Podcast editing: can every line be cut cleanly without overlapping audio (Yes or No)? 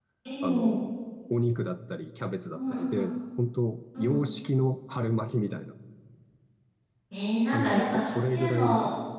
No